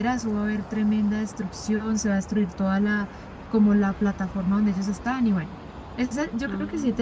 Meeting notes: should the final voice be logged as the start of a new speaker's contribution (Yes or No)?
No